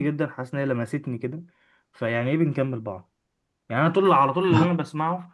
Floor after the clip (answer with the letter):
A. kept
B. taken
A